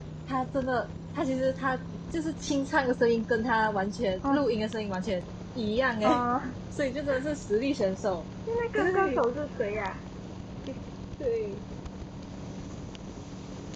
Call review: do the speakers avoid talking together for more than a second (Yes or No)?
Yes